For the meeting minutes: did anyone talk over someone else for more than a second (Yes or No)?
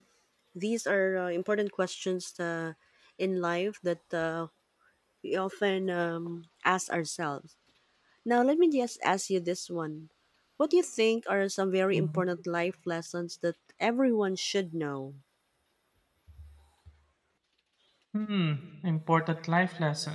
No